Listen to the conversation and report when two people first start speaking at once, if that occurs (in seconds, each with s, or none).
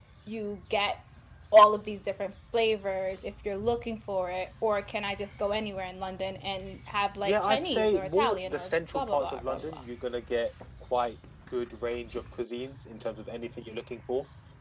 7.2 s